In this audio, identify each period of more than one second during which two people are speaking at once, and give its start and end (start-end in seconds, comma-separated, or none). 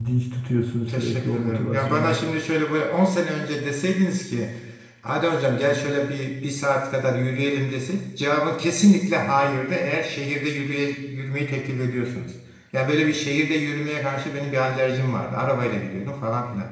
0.9-2.2